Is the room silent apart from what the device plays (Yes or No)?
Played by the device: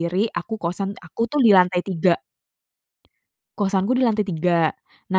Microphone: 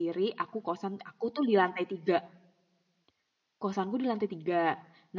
Yes